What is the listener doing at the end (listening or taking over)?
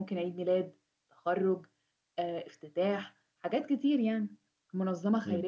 taking over